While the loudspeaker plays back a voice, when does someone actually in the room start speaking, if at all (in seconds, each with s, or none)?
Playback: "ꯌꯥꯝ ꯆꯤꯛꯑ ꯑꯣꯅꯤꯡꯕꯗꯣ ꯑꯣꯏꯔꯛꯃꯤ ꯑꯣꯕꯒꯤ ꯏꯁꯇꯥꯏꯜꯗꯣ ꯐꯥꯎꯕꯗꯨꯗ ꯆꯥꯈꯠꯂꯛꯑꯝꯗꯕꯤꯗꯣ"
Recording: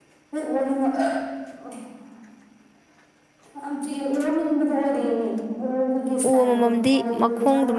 6.3 s